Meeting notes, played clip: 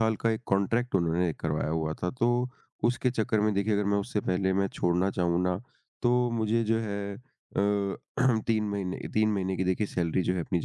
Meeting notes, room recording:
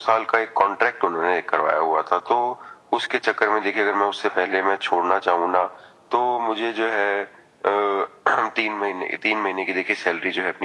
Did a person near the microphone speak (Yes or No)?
No